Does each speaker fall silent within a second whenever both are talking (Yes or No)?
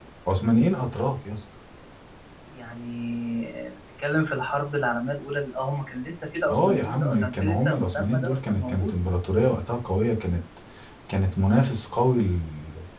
No